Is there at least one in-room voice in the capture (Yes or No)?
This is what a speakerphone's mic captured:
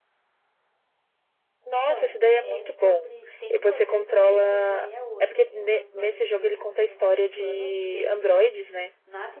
Yes